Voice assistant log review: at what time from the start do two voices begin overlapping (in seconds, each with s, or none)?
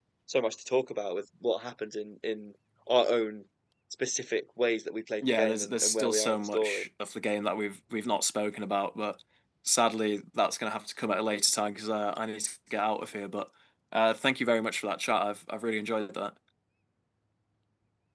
5.2 s